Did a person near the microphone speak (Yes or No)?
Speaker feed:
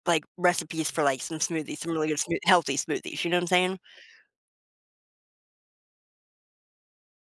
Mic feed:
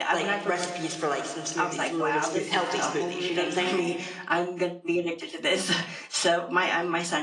Yes